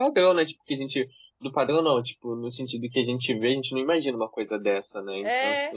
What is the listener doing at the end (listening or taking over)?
taking over